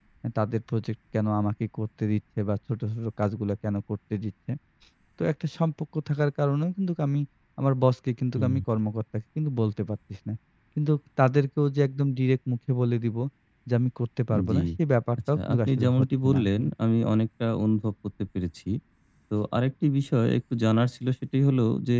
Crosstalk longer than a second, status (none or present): present